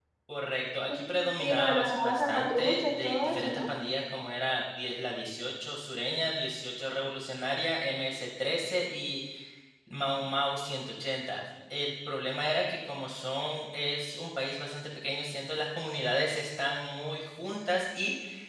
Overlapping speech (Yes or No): Yes